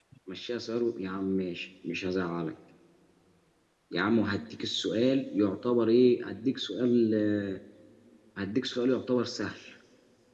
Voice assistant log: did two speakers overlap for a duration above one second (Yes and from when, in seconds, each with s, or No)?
No